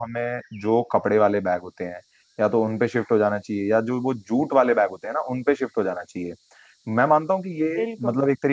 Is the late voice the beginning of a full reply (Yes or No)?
No